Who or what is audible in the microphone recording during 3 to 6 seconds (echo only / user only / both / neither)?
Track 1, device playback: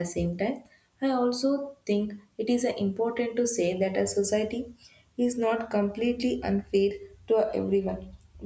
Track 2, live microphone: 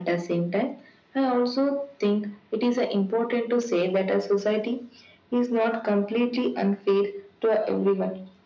echo only